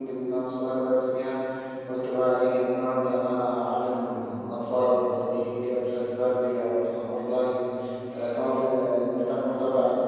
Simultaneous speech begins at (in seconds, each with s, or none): none